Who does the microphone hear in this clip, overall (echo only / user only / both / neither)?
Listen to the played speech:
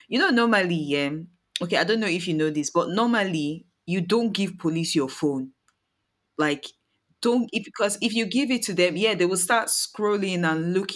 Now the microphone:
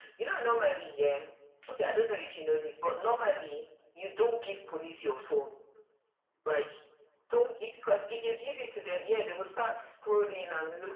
echo only